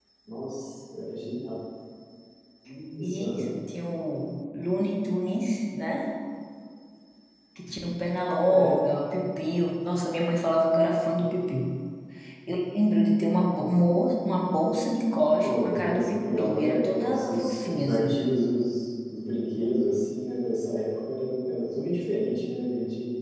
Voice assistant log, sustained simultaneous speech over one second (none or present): present